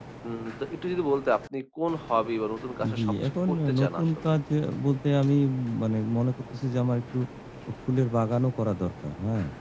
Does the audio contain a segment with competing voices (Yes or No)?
Yes